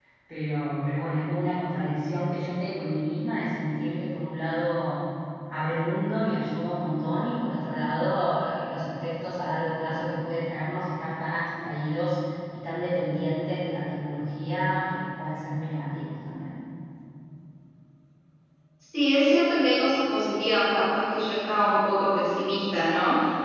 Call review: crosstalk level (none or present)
none